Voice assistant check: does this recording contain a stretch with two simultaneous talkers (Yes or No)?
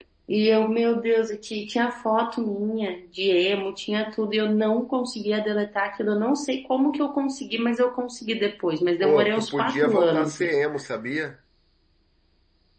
Yes